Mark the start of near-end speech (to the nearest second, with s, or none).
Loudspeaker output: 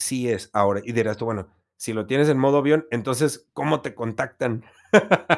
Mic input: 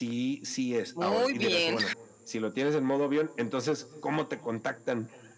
1 s